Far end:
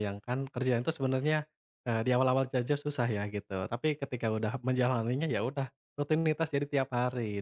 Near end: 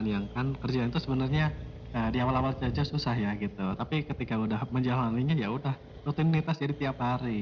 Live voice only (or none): none